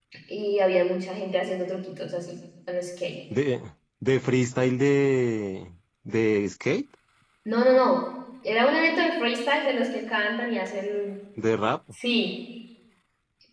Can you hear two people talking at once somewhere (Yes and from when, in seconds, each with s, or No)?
No